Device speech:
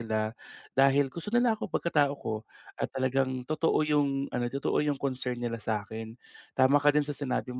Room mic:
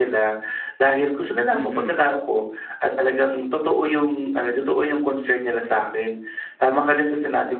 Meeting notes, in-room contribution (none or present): present